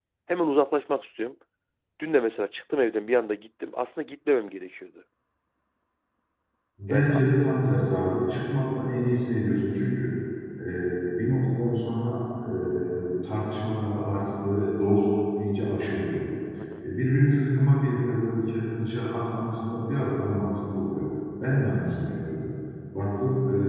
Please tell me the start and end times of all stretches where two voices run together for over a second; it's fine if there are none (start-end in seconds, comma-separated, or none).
none